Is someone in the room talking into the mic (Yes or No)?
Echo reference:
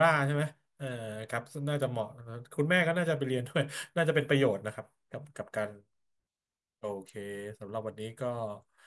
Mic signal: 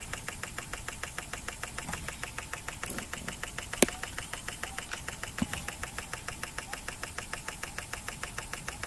No